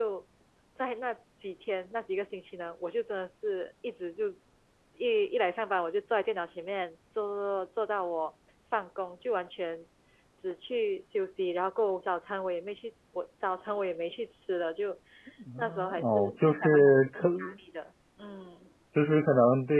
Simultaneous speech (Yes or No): Yes